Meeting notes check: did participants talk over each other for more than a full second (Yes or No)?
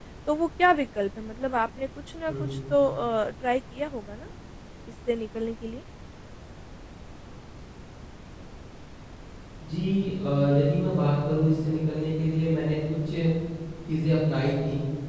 No